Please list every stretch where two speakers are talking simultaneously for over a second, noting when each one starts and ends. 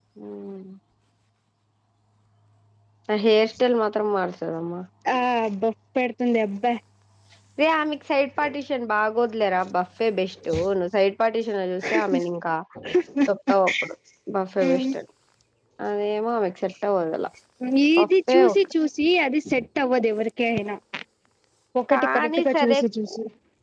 21.9-23.1

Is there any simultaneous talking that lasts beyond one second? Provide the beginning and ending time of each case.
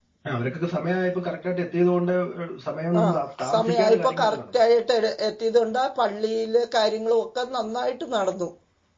3.0-4.6

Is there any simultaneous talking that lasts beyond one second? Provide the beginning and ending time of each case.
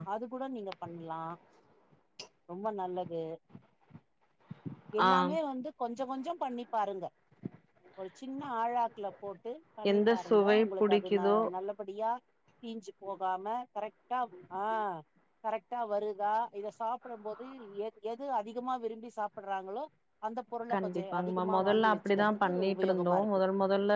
9.9-11.4, 20.7-23.3

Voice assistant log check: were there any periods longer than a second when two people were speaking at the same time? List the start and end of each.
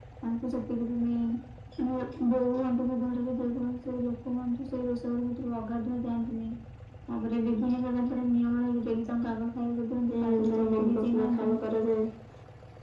10.1-11.5

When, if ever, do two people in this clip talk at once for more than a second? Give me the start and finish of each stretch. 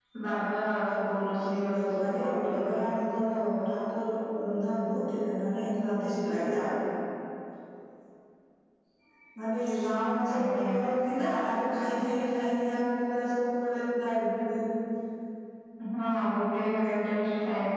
1.5-2.8

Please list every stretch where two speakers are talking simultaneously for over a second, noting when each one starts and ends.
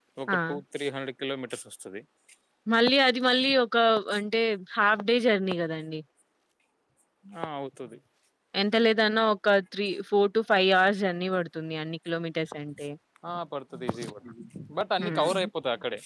none

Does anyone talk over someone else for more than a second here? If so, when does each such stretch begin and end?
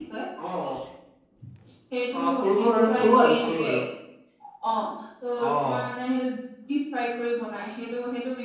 2.2-3.7

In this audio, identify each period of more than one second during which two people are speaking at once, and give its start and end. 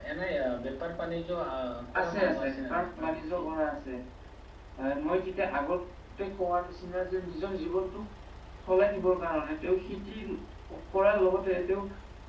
2.0-3.5

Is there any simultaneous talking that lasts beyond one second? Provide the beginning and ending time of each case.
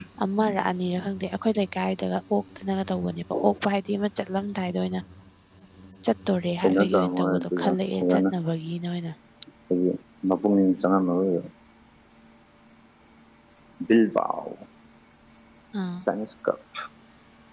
6.6-8.2

